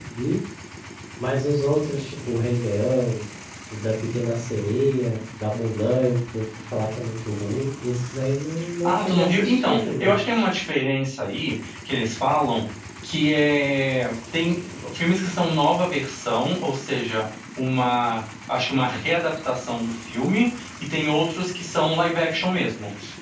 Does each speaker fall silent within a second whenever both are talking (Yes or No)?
No